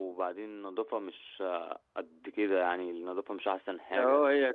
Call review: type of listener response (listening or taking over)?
taking over